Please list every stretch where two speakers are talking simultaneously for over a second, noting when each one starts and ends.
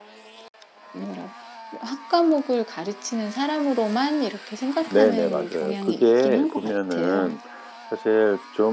4.8-7.3

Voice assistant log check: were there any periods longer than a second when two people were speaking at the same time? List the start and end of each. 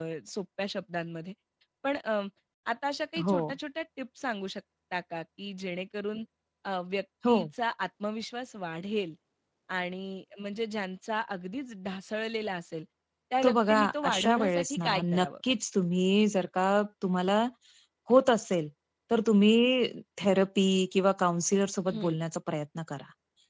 13.4-15.3

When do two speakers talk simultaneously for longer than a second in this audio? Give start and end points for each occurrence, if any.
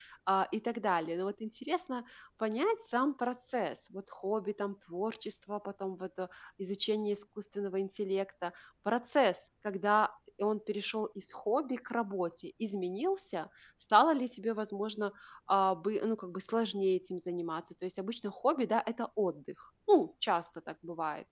none

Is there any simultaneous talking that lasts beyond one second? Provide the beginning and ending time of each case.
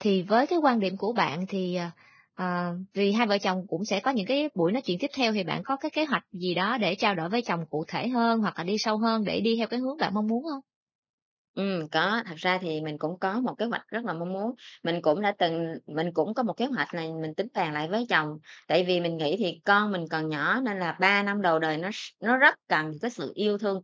none

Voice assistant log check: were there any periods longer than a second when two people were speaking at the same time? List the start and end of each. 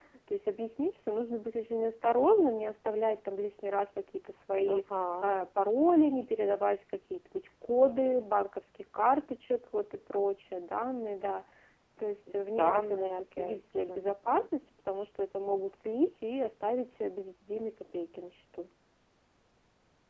12.6-14.1

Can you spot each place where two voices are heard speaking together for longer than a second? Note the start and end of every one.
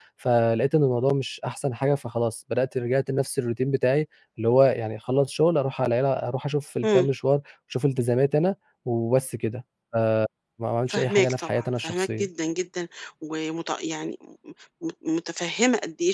10.9-12.3

